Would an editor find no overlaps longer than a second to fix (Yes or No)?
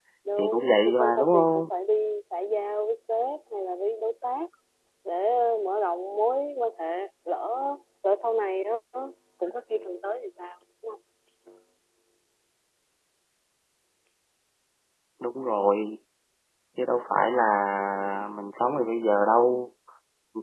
No